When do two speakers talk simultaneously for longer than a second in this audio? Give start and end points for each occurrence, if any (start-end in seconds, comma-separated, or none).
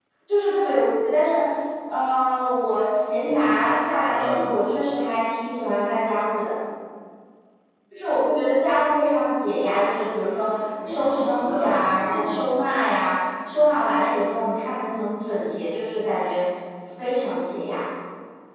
10.9-12.4